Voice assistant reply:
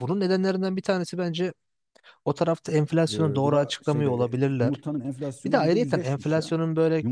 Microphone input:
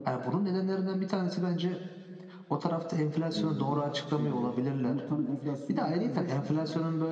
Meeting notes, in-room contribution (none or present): none